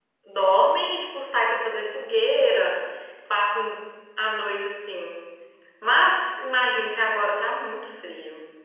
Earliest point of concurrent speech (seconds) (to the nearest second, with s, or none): none